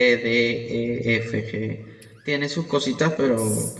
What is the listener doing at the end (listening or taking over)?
taking over